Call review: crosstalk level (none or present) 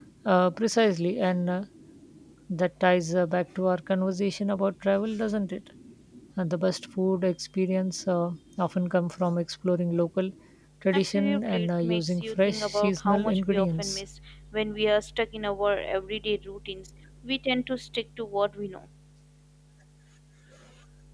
present